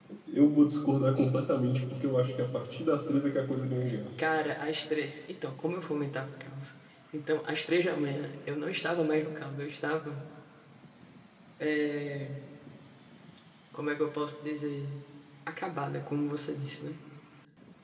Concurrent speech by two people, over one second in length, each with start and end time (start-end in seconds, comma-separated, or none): none